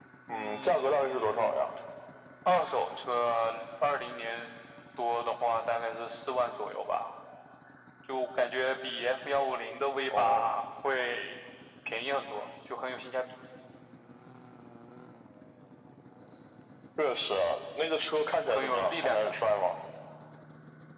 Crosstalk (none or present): present